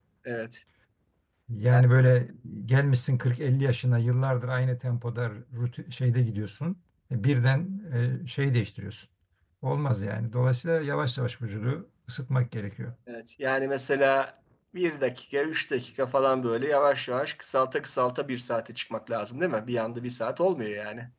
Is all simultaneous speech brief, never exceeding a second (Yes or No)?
Yes